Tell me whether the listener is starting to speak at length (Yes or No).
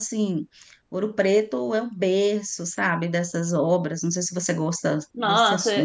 Yes